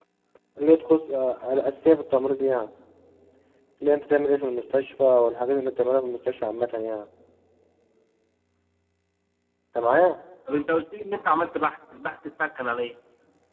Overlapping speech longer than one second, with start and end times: none

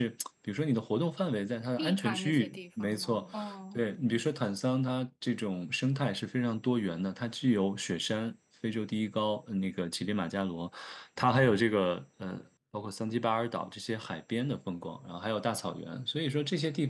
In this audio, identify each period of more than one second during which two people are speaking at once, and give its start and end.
1.8-3.2

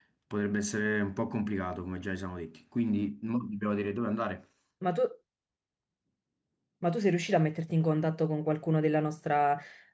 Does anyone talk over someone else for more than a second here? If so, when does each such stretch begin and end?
none

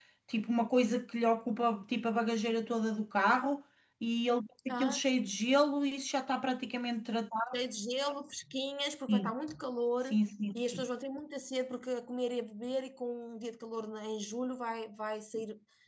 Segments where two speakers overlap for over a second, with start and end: none

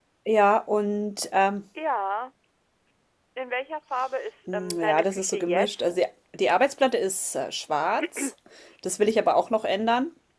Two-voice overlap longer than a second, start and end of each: 4.5-5.8

